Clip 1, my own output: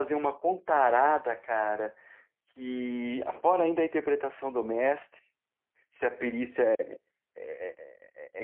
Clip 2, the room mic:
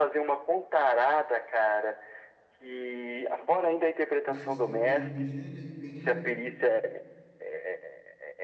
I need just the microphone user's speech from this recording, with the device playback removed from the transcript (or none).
o sistema de RPG, né? E bem,